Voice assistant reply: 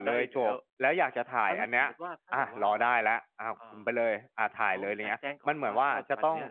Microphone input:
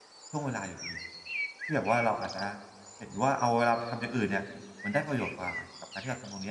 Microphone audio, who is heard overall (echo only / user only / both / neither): user only